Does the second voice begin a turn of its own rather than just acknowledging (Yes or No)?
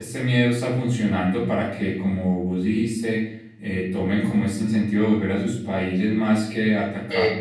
No